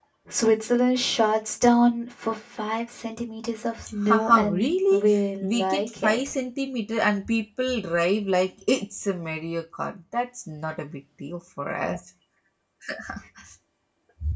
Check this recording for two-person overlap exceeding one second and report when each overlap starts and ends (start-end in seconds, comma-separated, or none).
4.1-6.2